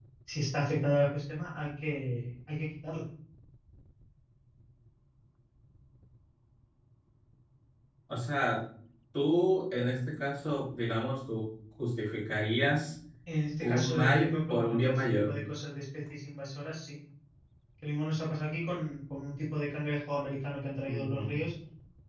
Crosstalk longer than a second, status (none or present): present